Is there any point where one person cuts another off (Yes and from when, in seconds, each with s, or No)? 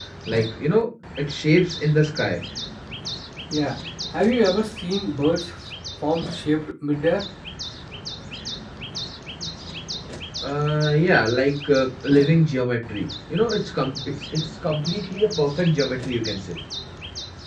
No